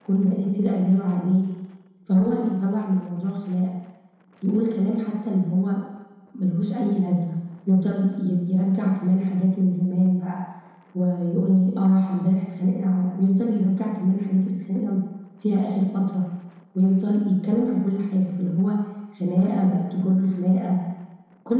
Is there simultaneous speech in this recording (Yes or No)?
No